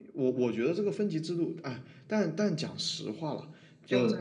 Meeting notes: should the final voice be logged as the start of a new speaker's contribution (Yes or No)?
No